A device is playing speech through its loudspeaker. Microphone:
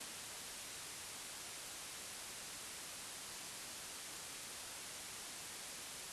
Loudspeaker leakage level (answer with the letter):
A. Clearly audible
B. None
B